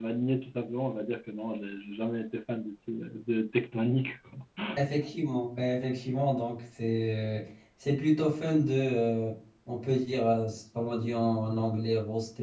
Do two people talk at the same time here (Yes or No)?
No